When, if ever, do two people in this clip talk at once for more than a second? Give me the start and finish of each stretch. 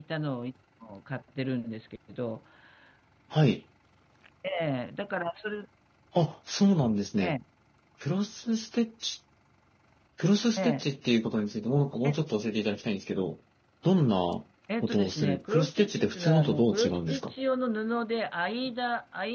14.8-17.3

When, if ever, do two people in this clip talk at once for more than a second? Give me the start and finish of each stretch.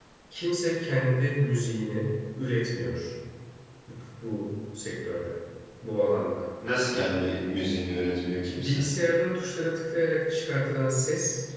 none

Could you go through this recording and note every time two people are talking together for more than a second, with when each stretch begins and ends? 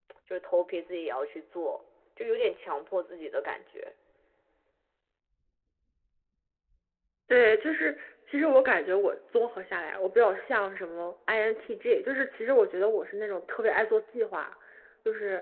none

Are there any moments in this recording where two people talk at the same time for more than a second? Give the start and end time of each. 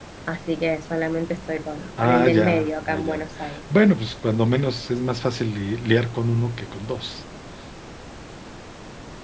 2.0-3.2

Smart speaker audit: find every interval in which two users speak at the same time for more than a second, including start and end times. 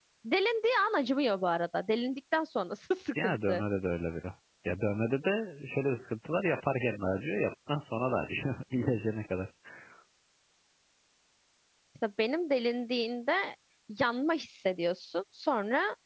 none

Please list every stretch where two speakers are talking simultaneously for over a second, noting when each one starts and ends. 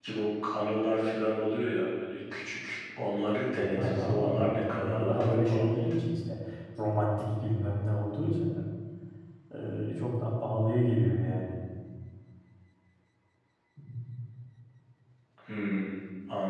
3.5-5.9

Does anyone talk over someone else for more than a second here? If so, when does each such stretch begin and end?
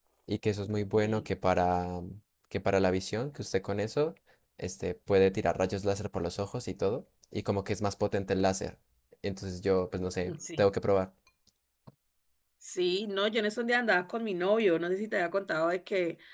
none

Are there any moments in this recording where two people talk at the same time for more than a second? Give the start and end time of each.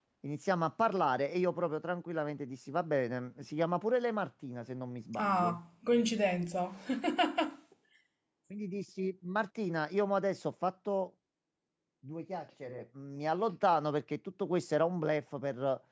none

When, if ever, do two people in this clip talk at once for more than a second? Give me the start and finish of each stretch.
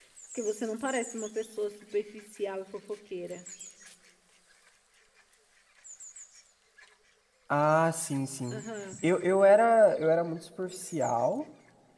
none

